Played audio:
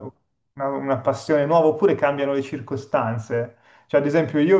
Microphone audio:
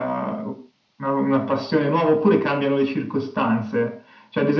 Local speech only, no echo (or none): none